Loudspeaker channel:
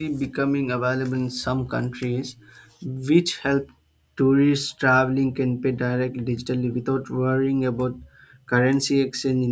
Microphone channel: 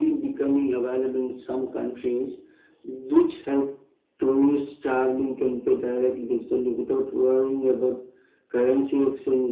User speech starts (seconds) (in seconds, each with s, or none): none